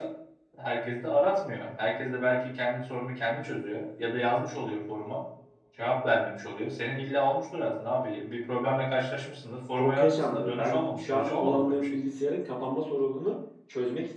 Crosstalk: present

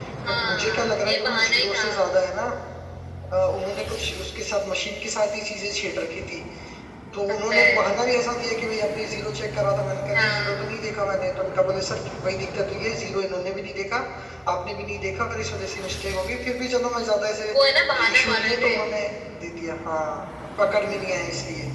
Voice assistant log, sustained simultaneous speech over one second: present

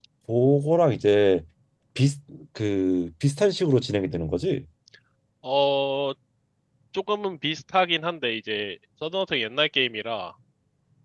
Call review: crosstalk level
none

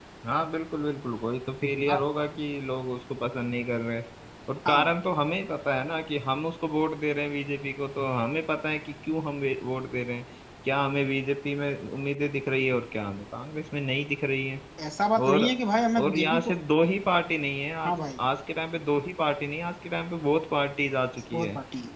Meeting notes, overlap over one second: none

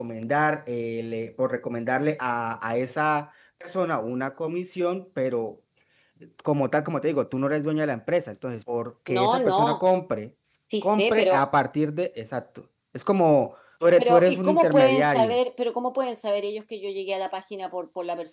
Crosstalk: present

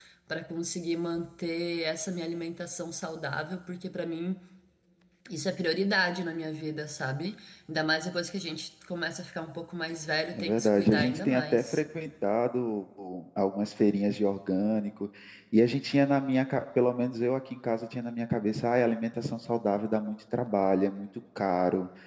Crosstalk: present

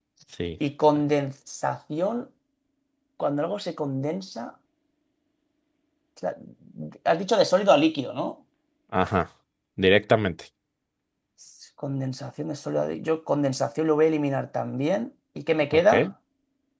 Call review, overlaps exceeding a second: none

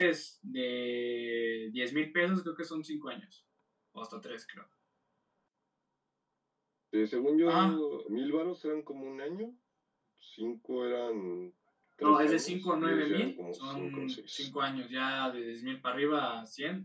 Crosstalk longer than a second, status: present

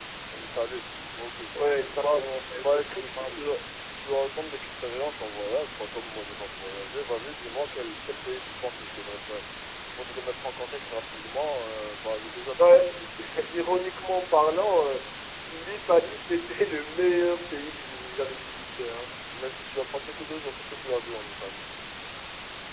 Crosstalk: present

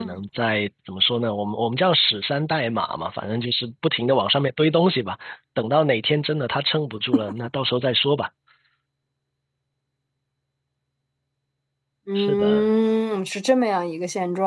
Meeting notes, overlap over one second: none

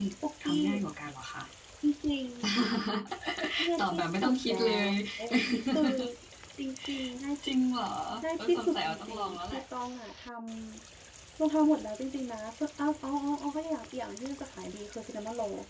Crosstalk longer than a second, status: present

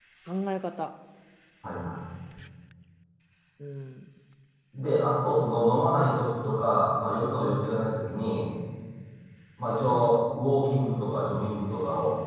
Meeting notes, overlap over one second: none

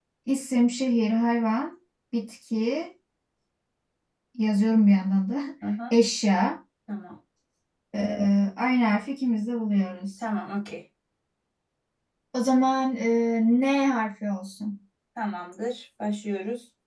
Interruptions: none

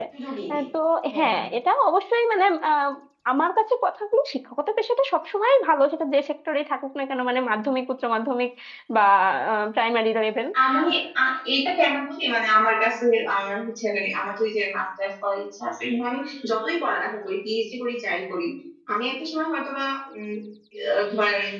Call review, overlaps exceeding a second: none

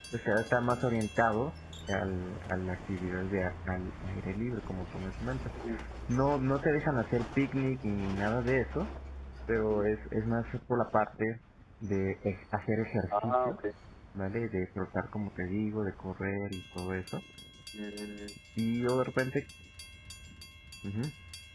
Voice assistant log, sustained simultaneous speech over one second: none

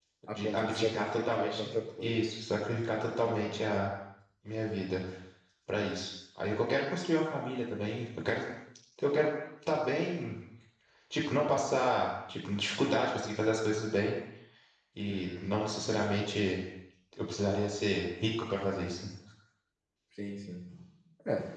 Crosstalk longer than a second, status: present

